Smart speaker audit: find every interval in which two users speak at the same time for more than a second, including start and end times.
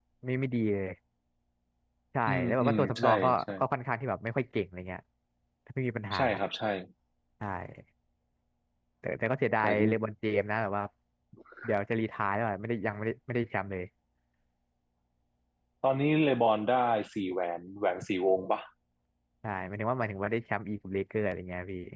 2.3-3.5

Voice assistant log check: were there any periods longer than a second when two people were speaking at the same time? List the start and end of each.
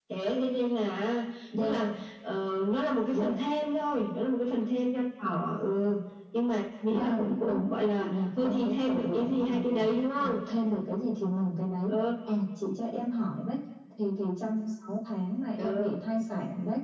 6.9-9.8

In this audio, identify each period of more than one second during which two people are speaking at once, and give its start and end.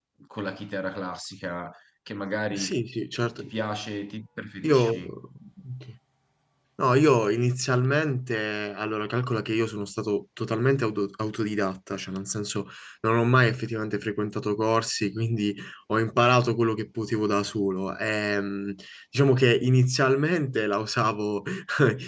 none

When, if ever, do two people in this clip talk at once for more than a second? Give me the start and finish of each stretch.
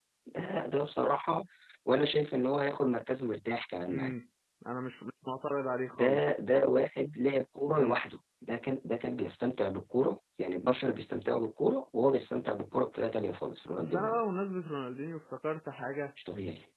none

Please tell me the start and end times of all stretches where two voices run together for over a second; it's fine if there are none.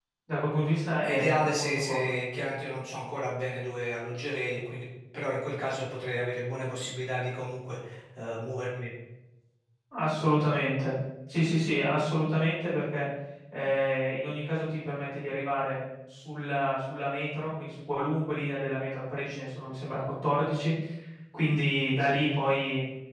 1.0-2.2

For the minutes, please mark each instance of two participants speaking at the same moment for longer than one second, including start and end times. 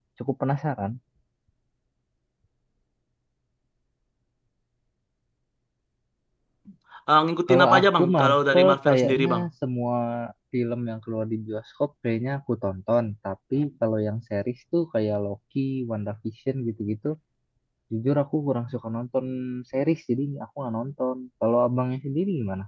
7.5-9.4

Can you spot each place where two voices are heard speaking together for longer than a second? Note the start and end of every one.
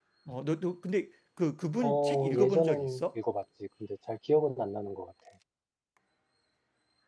1.8-3.0

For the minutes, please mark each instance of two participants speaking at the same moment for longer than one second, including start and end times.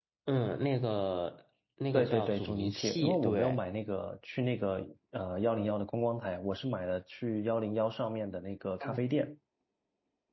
1.9-3.6

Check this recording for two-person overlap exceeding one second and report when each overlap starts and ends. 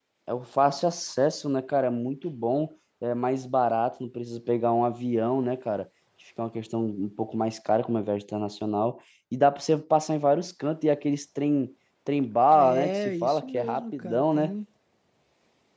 12.5-14.5

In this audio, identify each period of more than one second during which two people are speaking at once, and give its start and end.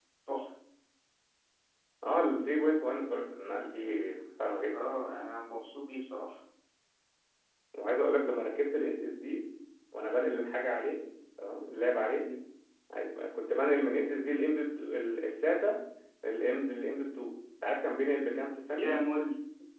none

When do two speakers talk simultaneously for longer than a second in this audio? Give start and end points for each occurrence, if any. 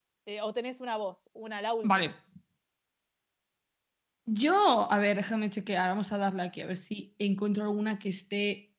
none

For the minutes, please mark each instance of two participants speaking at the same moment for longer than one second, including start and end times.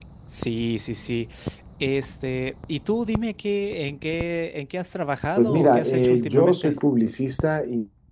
5.4-6.8

